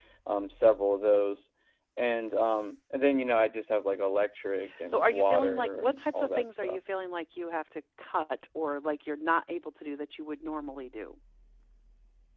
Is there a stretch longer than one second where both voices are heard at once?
Yes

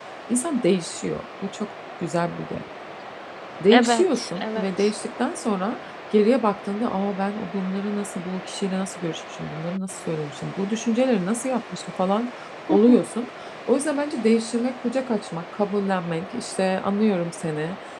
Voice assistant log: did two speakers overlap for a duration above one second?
Yes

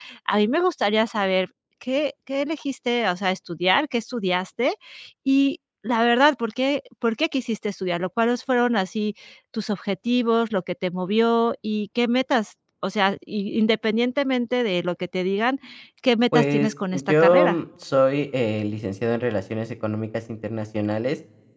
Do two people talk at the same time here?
Yes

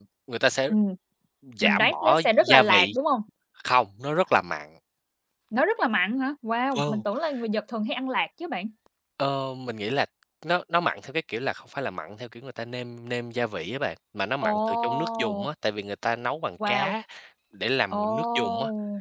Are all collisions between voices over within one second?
No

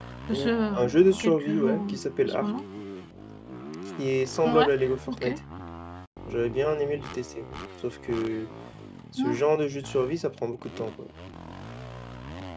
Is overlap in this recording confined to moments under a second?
No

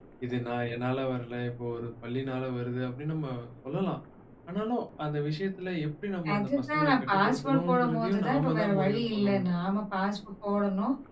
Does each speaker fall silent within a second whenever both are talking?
No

